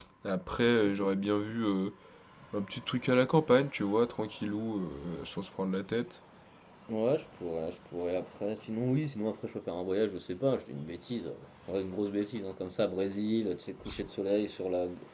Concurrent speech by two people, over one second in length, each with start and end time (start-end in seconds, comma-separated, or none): none